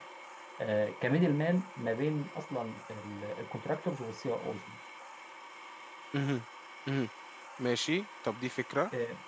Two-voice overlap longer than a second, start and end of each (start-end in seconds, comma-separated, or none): none